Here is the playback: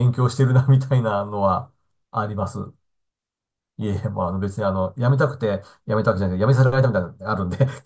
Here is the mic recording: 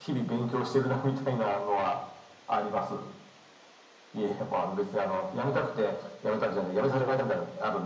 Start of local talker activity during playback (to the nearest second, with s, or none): none